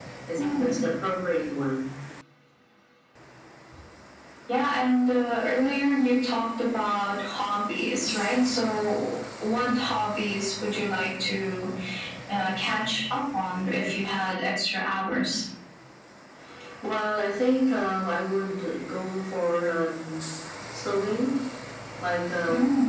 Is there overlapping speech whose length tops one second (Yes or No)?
No